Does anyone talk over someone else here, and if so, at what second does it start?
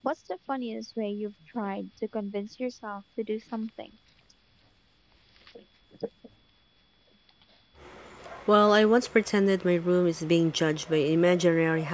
none

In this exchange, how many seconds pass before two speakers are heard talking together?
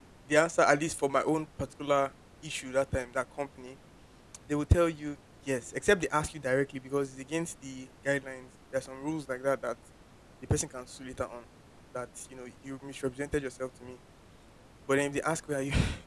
none

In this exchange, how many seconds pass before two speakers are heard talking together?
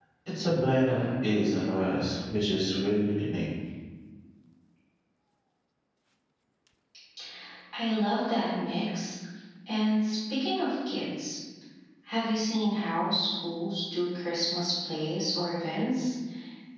none

